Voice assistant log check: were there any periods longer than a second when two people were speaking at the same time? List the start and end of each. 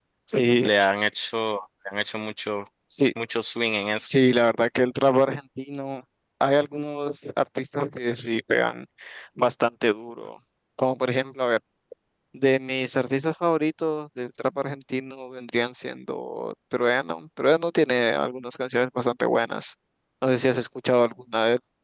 none

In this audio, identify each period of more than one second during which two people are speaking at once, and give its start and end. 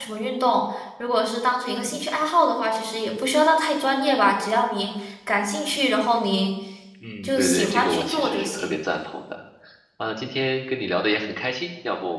7.2-8.7

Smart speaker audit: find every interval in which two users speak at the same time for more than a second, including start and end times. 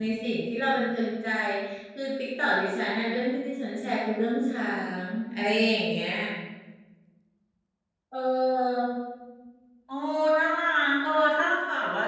none

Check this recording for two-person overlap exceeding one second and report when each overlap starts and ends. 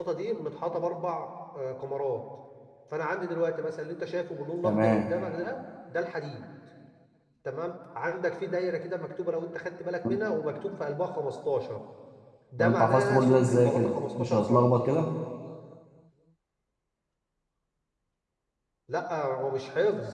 12.6-14.7

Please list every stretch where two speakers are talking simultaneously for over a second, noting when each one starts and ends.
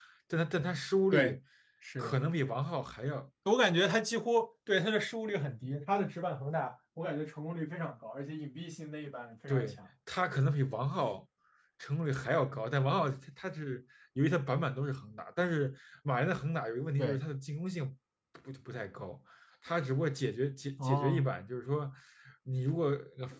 none

